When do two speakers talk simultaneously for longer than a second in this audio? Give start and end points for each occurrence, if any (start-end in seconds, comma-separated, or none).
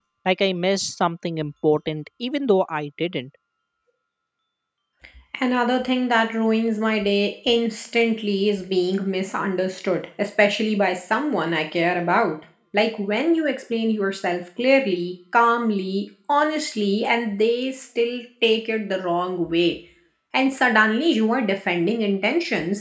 none